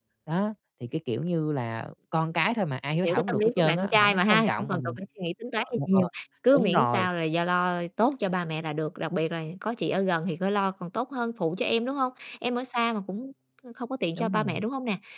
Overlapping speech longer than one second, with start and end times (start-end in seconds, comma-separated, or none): 3.0-5.0